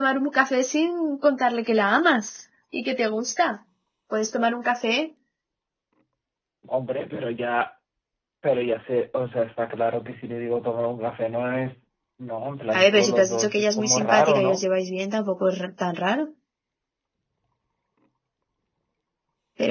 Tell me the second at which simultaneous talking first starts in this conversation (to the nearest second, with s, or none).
13 s